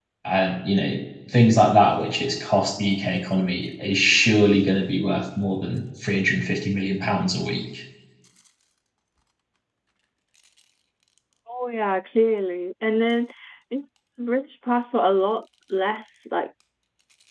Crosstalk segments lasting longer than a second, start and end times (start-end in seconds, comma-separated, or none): none